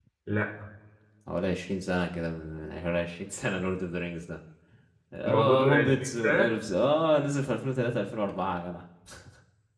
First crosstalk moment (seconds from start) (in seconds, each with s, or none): 5.2 s